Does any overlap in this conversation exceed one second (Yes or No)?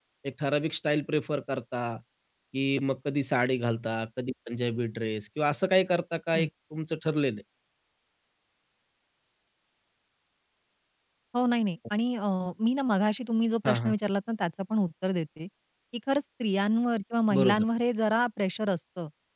No